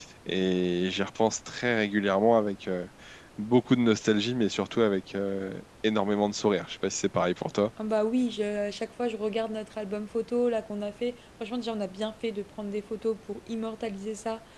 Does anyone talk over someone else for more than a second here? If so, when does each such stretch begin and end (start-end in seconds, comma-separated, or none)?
none